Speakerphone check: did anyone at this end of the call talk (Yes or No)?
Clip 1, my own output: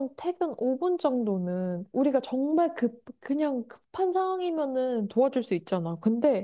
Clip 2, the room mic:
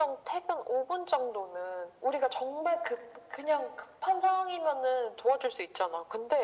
No